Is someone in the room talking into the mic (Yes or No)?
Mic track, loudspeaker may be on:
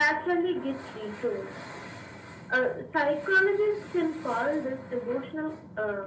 No